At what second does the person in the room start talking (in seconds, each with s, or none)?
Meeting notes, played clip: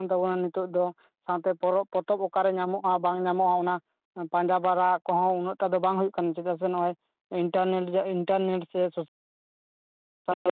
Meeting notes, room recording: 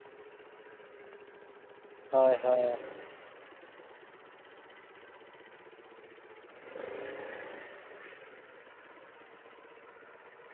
2.1 s